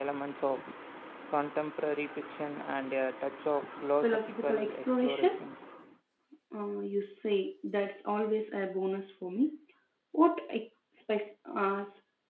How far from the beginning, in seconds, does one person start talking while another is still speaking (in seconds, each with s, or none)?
4.0 s